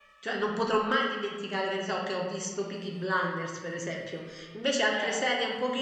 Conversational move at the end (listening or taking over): listening